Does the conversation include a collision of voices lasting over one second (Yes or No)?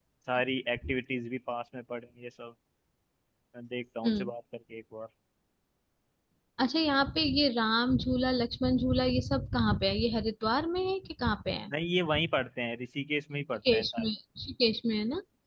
No